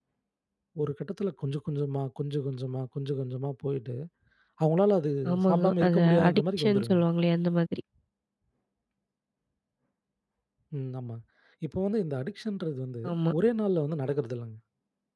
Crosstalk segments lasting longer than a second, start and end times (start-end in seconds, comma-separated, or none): 5.3-7.0